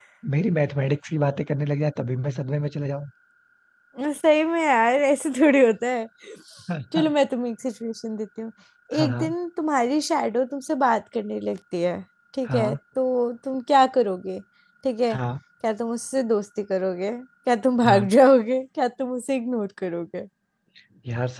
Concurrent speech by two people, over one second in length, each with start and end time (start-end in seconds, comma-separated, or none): none